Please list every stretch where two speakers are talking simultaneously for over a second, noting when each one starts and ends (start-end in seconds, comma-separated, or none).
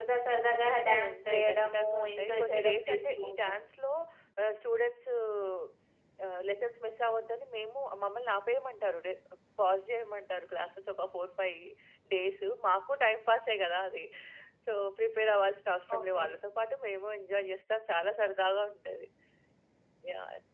0.7-3.5